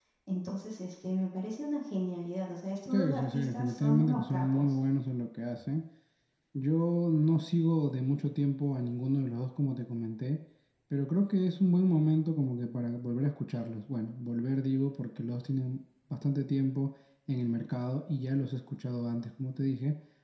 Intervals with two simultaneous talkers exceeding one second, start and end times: 2.9-4.8

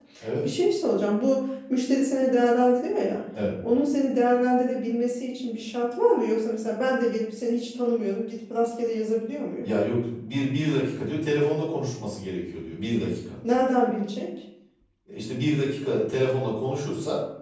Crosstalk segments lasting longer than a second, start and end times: none

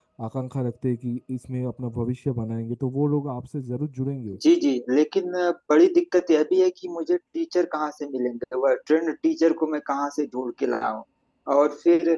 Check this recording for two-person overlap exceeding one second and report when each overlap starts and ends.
none

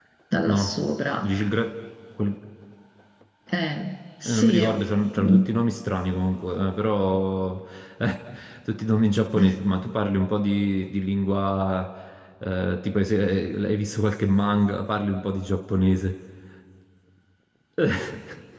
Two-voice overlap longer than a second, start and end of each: none

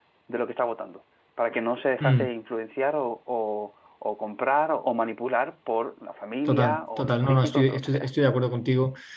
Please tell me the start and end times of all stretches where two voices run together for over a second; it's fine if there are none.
6.5-8.1

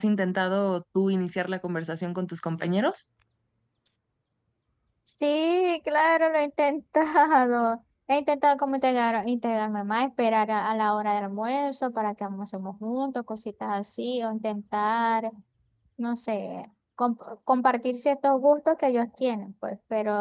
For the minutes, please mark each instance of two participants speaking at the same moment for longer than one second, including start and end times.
none

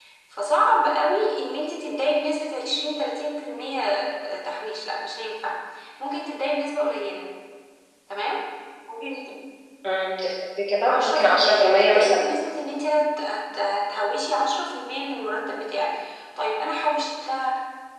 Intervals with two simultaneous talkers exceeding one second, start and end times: 10.8-12.2

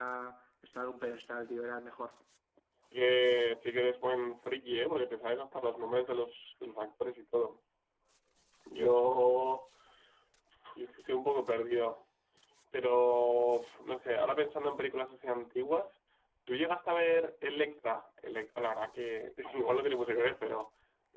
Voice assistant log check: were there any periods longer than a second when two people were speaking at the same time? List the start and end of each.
none

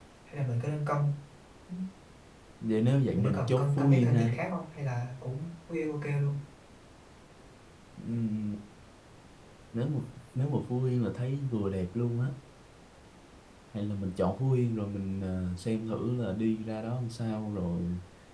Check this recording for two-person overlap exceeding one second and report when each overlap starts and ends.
3.1-4.4

